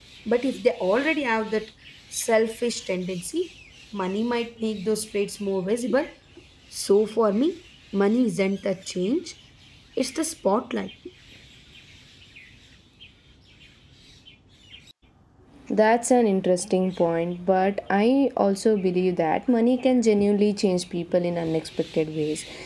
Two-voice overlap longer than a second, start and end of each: none

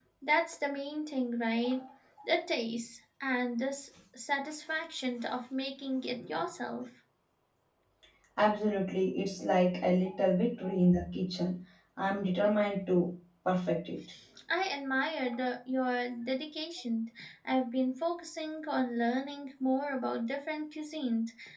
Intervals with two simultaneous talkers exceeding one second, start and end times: none

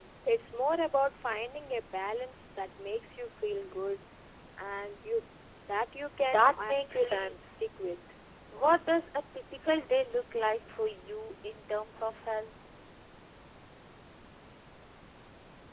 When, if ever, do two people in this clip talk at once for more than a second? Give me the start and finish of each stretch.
6.3-7.5

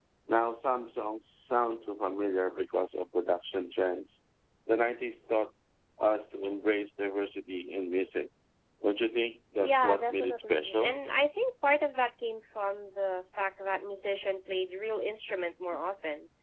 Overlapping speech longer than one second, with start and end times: 9.6-11.0

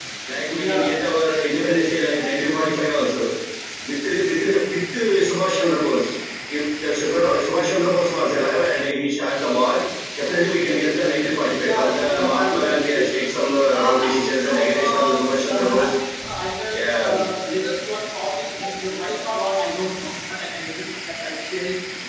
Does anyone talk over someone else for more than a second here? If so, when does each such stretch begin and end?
11.6-13.1, 13.7-15.1

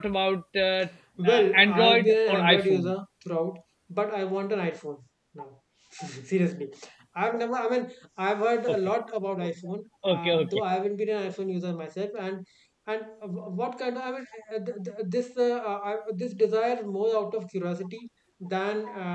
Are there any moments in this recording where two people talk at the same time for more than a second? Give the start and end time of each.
1.2-2.9

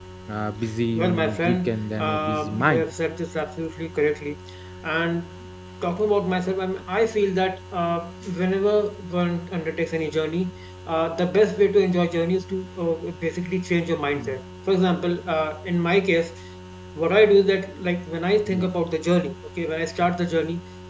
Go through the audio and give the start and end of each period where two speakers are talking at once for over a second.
0.9-2.9

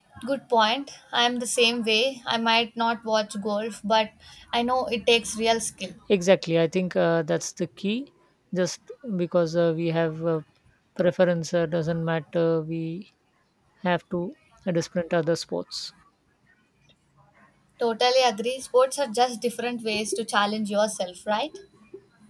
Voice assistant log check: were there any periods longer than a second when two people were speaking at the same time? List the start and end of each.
none

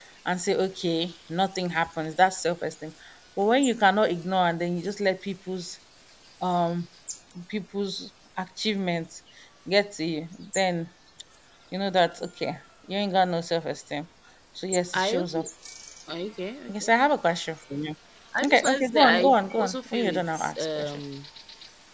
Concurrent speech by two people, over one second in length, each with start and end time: 18.4-21.0

